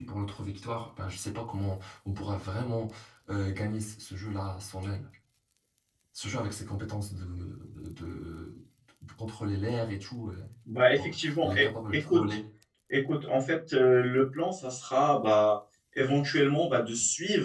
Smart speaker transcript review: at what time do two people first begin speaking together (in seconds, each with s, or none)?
11.0 s